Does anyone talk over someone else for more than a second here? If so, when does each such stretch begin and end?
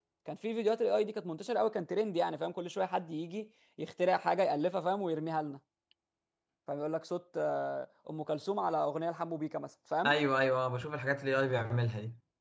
none

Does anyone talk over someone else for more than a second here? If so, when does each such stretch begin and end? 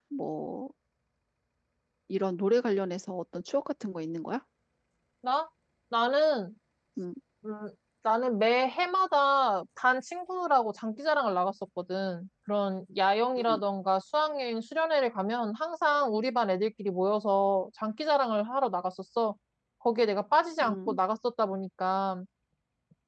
none

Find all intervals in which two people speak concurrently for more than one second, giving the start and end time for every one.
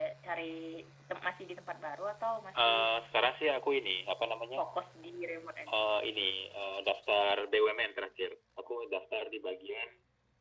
none

